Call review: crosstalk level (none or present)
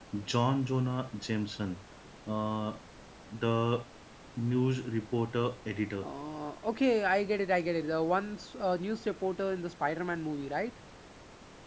none